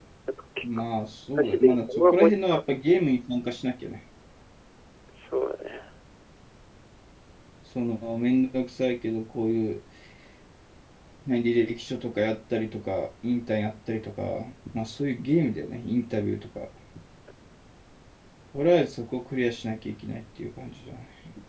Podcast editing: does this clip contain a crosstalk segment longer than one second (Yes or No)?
Yes